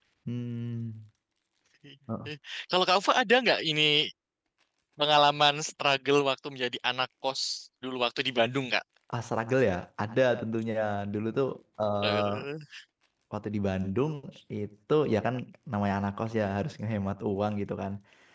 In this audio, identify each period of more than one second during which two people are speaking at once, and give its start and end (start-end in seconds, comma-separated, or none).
none